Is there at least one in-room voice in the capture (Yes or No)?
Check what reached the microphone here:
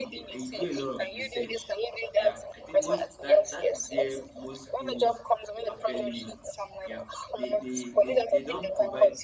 Yes